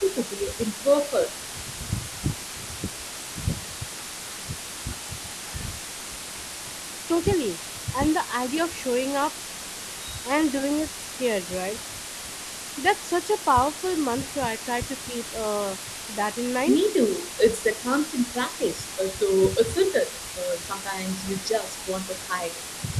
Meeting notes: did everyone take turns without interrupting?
Yes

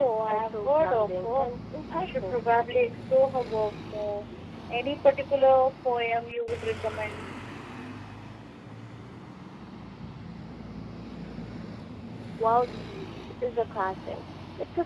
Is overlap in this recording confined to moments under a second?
No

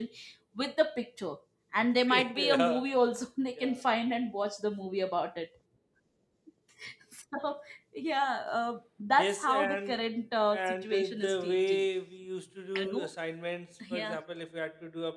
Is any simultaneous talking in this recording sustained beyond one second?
Yes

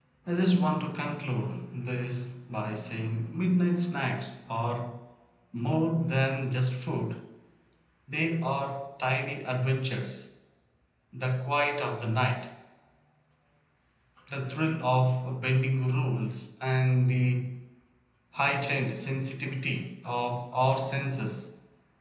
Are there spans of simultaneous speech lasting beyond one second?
No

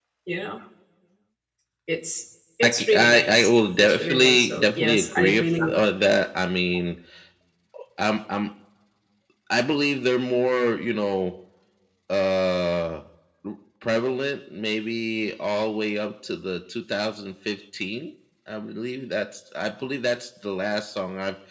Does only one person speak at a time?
No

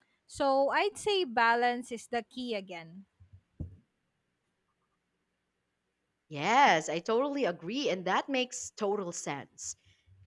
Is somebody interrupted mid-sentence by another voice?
No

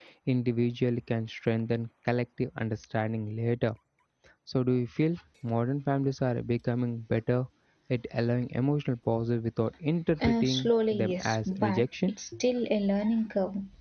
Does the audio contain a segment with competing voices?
Yes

